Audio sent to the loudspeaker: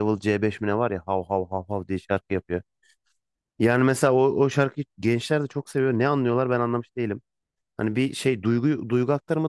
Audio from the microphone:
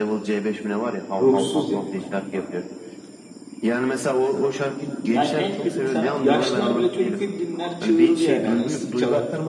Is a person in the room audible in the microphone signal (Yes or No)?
Yes